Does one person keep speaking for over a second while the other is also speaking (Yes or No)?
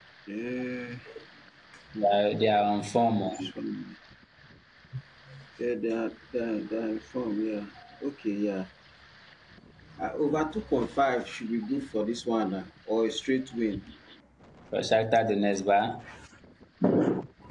No